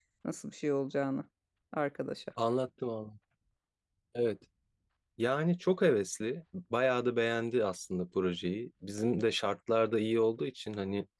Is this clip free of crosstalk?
Yes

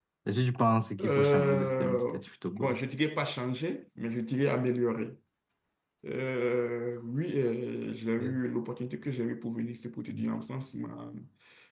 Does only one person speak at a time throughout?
No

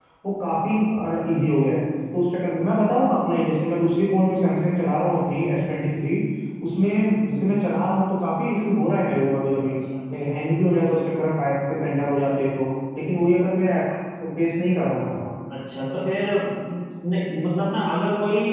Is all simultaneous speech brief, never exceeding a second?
Yes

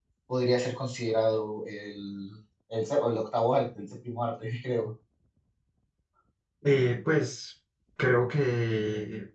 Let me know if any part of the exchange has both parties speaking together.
No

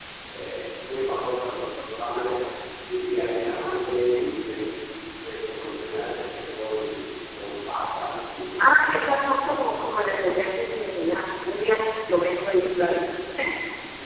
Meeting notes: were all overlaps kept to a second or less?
Yes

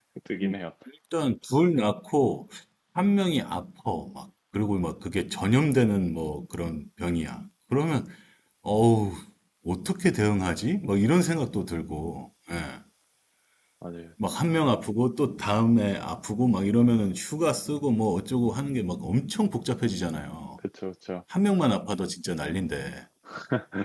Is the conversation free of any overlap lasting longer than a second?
Yes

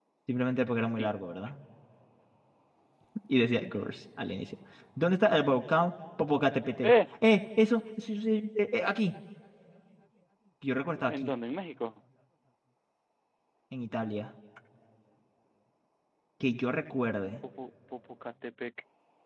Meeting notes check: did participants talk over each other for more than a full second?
No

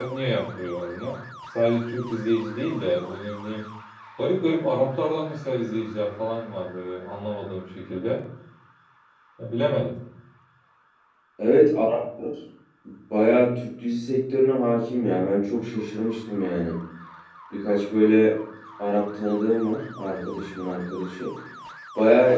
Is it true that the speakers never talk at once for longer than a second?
Yes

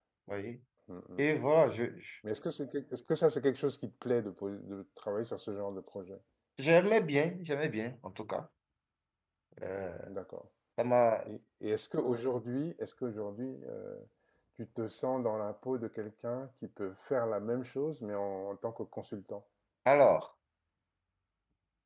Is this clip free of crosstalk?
Yes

